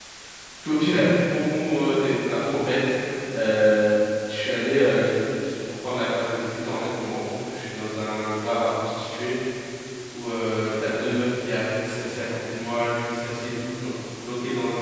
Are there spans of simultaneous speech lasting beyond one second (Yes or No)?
No